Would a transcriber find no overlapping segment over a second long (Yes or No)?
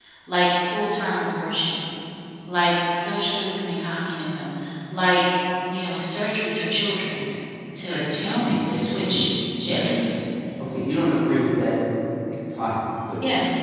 No